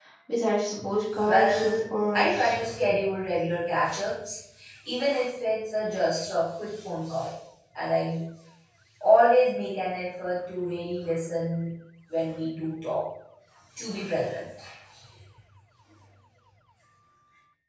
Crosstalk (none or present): present